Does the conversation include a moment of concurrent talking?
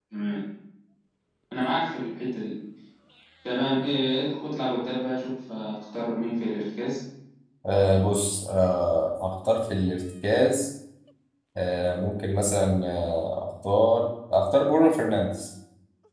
No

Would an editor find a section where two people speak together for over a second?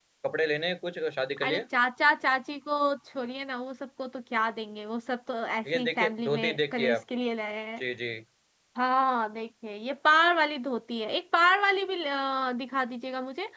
Yes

